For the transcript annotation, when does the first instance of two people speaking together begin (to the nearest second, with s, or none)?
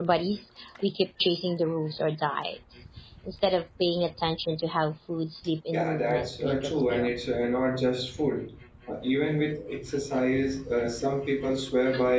6 s